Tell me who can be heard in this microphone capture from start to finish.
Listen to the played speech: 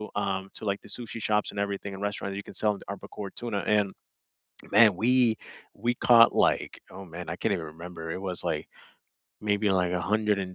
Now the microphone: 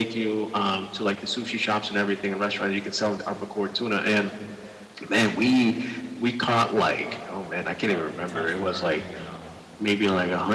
both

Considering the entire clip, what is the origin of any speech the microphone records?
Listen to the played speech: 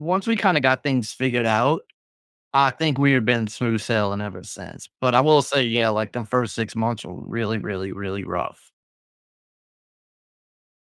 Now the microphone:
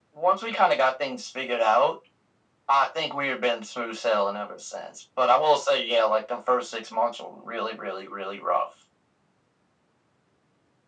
echo only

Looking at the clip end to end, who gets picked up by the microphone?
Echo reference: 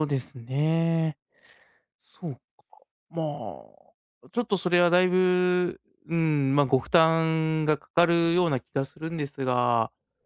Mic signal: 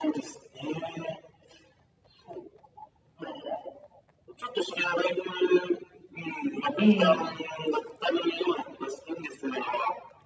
both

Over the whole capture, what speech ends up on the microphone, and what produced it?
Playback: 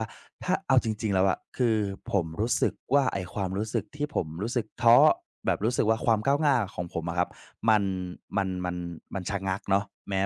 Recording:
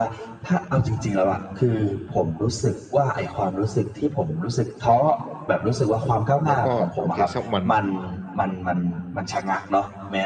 both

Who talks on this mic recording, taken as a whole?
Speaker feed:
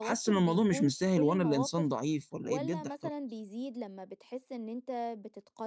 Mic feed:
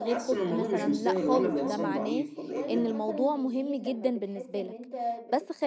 both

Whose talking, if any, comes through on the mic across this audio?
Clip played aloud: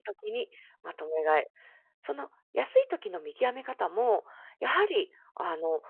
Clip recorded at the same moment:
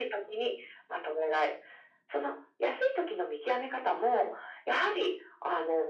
echo only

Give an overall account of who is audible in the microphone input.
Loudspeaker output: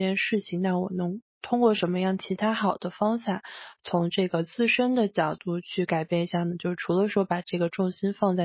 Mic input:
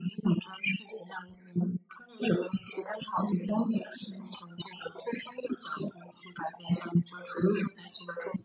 echo only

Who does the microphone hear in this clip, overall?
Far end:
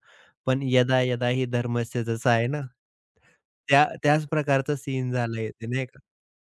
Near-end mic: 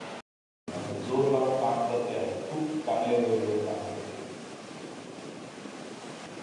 user only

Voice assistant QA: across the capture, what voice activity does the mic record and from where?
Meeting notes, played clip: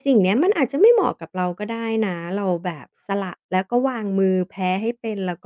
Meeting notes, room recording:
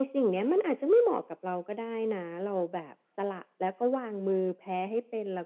echo only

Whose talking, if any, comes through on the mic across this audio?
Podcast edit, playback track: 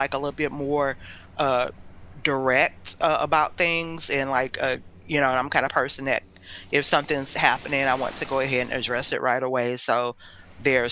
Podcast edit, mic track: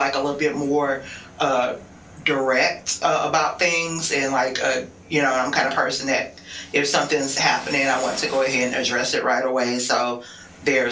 echo only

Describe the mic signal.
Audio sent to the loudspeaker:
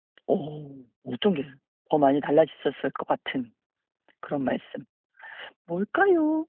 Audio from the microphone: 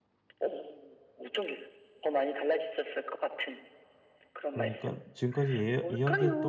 both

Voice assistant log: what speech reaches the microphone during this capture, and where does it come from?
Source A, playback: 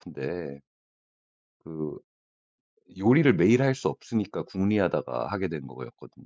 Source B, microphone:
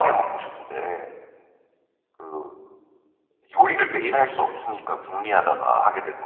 echo only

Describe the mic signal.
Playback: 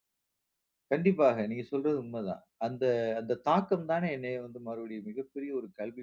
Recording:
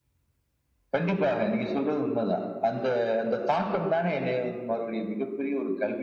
echo only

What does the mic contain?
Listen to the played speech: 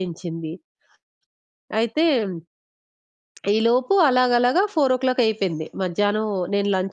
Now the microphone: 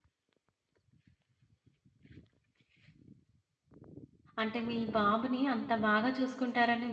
user only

